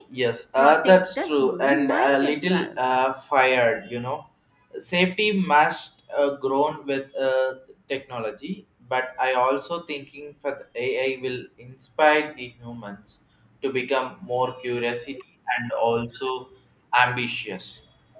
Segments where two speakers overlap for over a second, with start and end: 0.6-2.8

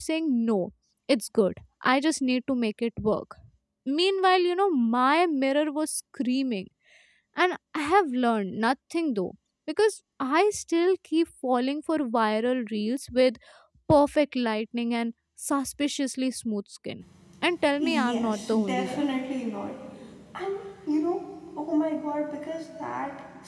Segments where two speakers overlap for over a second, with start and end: 17.8-19.0

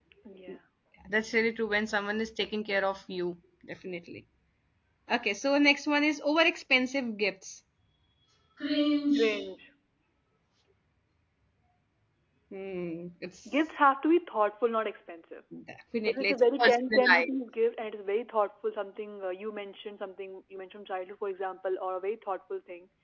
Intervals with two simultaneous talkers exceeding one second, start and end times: 16.1-17.4

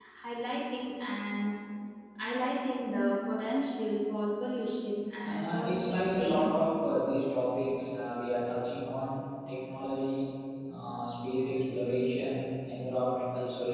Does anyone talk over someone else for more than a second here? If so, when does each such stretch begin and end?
5.2-6.5

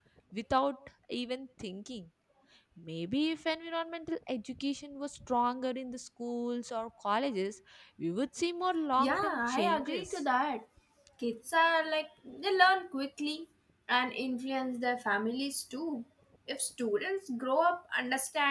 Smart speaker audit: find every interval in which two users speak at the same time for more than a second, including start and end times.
9.0-10.2

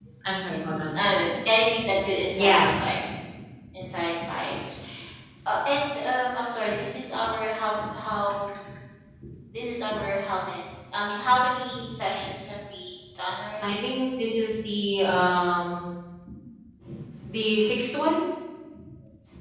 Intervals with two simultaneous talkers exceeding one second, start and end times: none

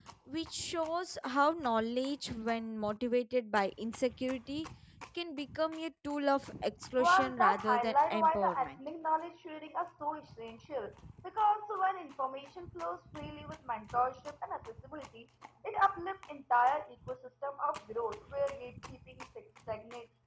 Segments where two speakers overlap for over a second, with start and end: 7.0-8.7

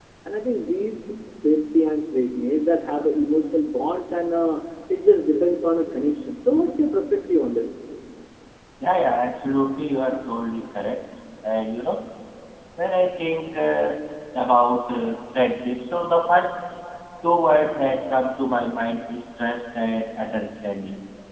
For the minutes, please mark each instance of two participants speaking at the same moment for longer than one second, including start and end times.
none

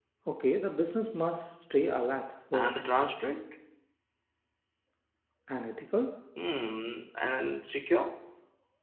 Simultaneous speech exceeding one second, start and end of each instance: none

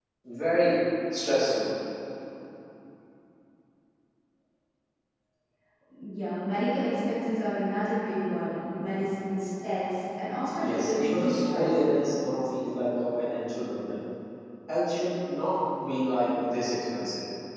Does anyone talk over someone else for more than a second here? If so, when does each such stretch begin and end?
10.6-11.9

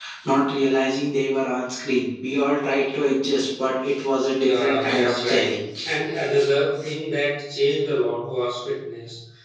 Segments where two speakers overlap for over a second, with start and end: 4.4-5.7

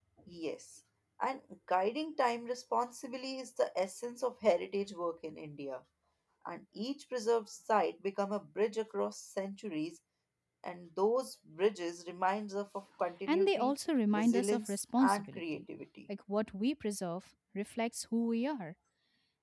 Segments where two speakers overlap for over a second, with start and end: 14.1-15.6

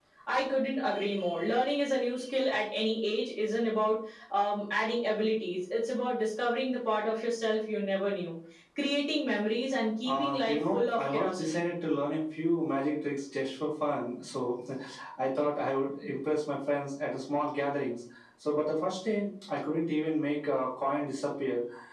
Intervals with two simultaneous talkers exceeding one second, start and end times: 10.1-11.7

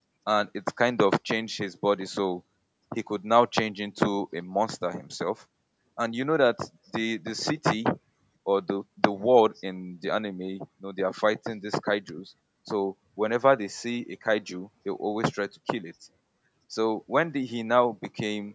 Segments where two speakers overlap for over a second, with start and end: none

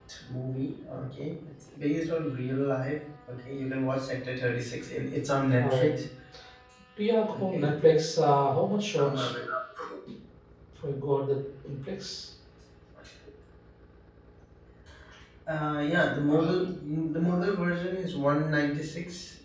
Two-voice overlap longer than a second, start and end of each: none

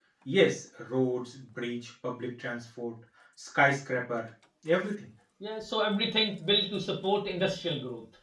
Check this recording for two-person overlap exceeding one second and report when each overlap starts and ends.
none

